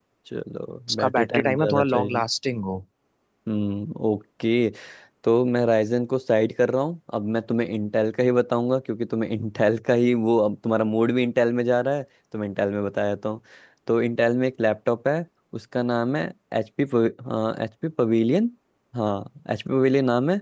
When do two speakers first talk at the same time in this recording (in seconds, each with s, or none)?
0.9 s